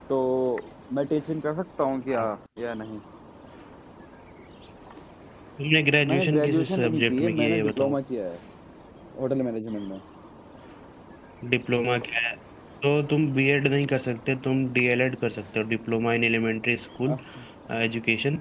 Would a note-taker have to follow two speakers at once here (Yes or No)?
Yes